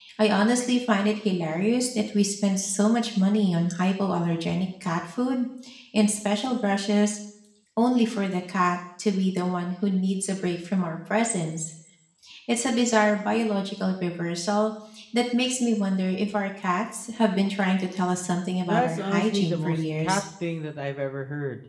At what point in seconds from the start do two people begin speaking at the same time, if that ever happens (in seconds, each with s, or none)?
18.7 s